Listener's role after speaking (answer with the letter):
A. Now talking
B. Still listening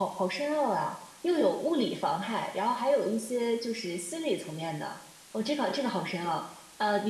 B